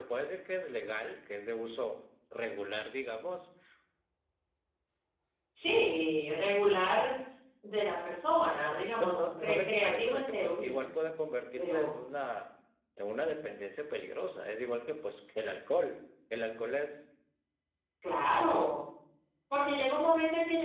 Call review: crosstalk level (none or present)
present